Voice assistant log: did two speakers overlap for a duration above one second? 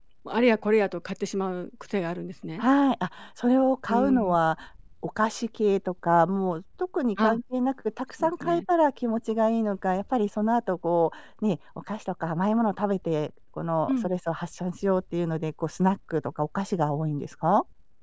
No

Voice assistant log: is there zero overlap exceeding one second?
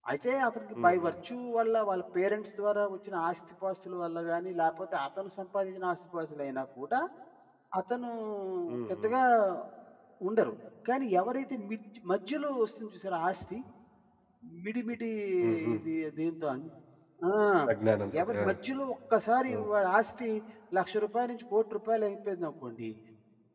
Yes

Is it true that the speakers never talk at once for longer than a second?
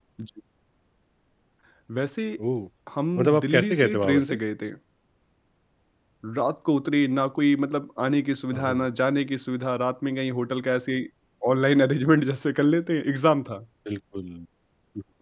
No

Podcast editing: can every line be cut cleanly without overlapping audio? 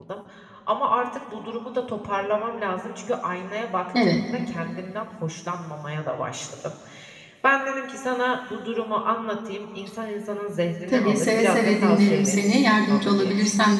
No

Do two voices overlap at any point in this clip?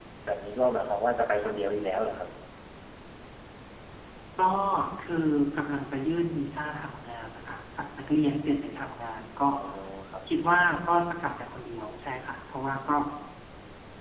No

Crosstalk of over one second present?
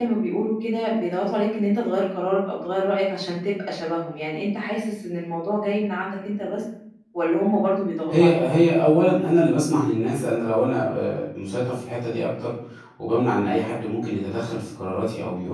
No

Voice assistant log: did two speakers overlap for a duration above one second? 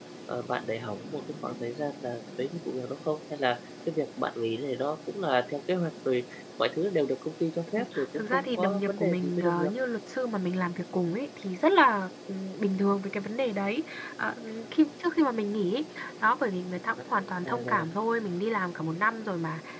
Yes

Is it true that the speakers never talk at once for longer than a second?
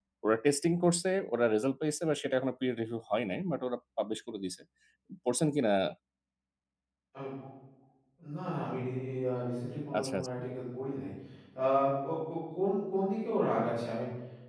Yes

